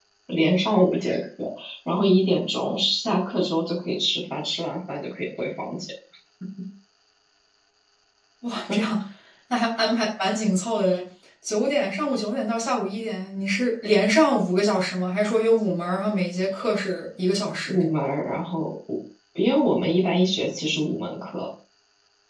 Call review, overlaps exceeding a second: none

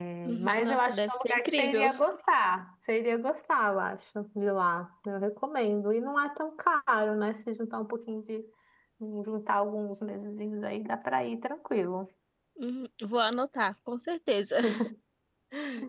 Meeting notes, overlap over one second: present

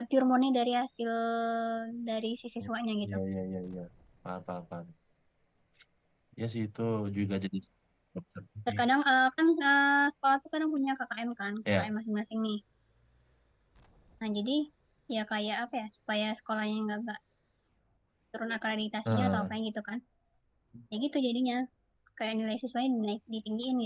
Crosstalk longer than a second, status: none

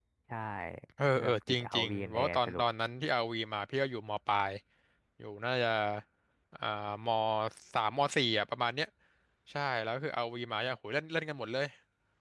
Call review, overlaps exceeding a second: present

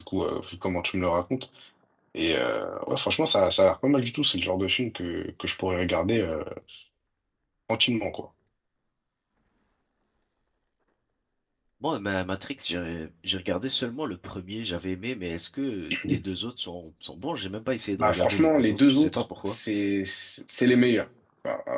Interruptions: present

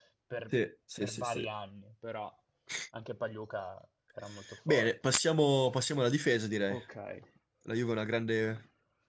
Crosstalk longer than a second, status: none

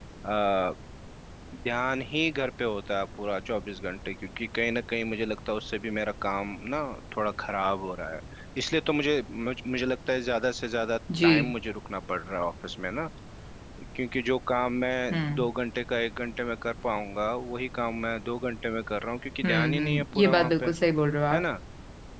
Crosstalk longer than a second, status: present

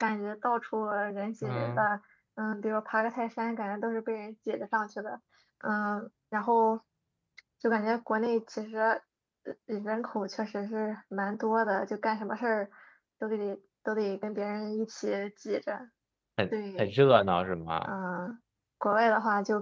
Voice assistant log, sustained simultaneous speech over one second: none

